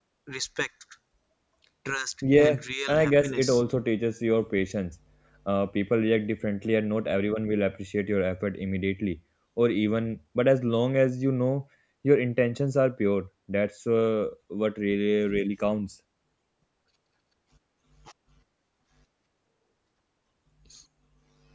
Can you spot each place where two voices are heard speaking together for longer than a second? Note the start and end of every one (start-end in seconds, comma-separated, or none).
2.4-3.6